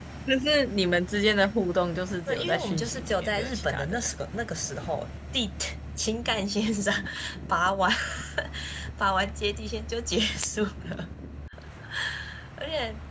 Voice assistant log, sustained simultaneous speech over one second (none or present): present